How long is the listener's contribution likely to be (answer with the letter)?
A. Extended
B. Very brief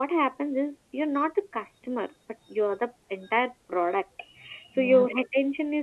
B